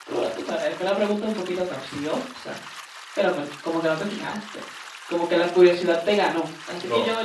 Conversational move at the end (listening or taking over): listening